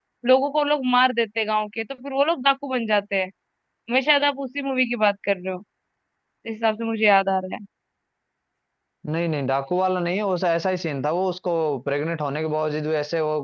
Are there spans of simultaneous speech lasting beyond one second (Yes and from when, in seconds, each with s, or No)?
No